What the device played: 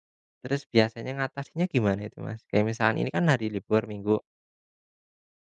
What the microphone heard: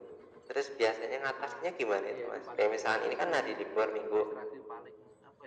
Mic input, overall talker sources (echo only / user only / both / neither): both